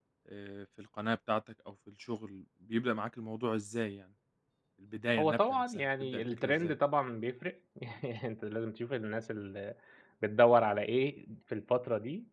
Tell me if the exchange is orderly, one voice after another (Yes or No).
No